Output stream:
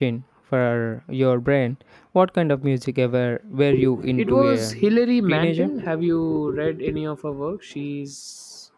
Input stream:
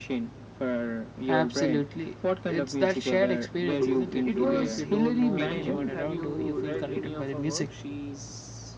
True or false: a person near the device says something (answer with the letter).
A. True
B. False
A